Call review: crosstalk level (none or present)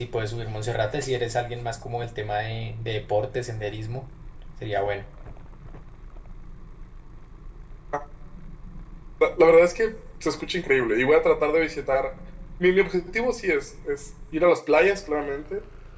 none